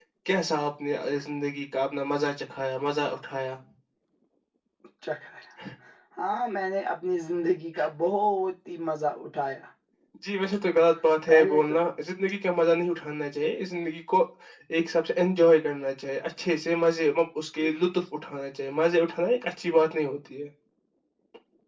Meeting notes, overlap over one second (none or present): none